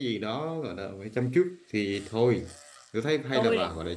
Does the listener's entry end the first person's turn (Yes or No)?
No